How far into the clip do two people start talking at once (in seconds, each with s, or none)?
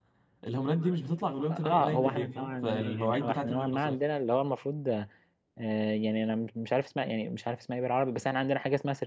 1.5 s